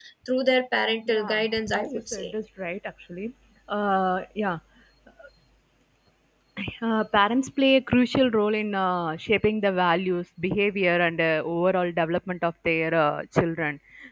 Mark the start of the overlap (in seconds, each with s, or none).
1.1 s